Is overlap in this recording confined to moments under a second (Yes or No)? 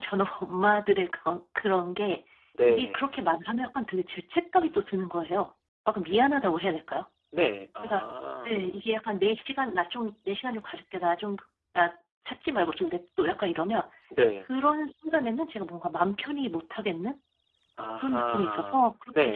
No